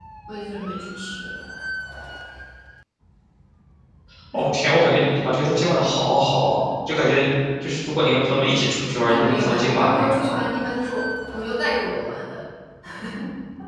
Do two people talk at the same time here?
Yes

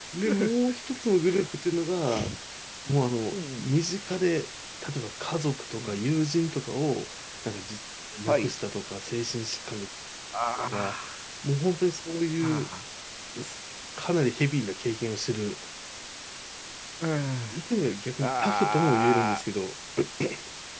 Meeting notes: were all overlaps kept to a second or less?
No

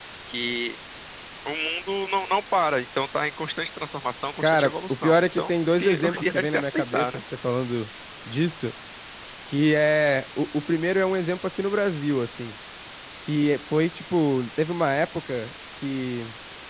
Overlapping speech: Yes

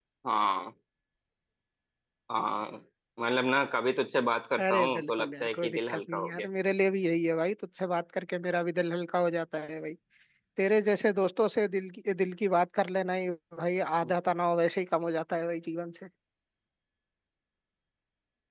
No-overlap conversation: No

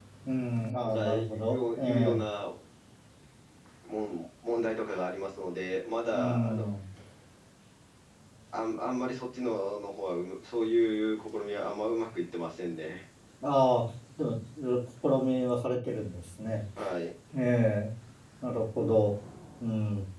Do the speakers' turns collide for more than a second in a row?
Yes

